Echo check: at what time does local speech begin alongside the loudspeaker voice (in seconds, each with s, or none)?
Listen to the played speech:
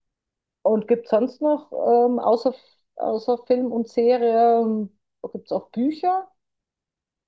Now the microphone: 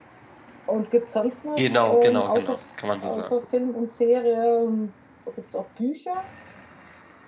1.6 s